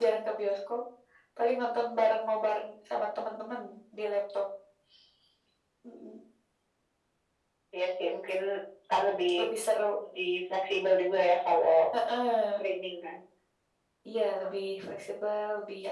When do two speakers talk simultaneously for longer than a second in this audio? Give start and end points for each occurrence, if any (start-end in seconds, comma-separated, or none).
none